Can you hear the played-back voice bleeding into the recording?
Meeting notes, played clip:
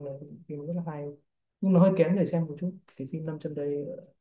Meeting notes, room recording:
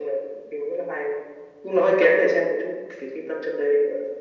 Yes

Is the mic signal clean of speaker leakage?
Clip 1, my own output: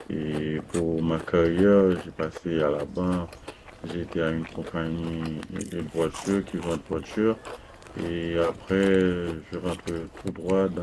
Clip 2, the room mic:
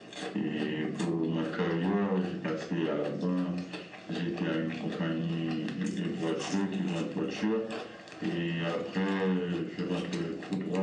No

